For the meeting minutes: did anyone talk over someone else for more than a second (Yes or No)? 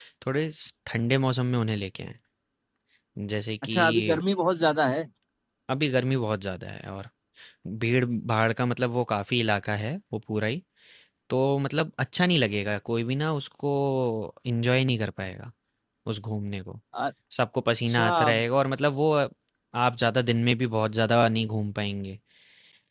No